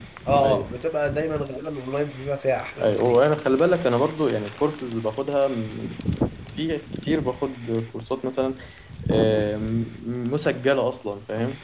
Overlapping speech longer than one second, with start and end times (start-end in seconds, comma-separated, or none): none